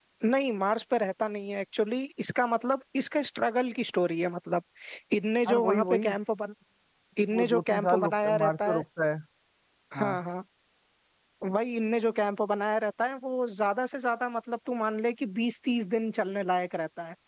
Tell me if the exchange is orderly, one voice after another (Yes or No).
No